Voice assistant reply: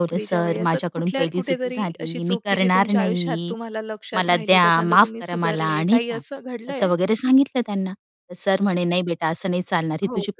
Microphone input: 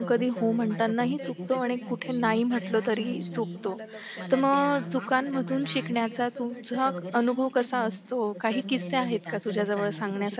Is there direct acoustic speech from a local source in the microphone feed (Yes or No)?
Yes